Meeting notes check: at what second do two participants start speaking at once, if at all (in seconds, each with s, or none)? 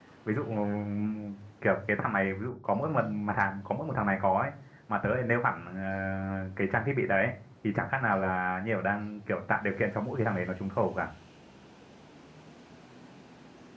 none